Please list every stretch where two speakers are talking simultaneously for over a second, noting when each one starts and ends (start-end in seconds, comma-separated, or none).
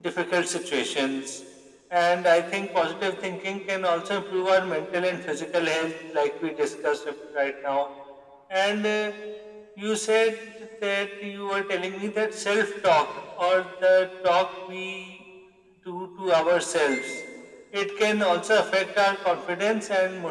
none